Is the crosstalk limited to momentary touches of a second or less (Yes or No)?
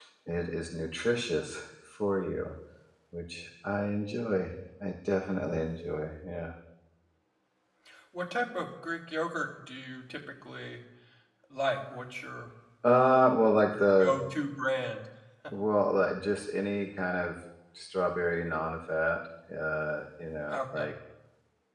Yes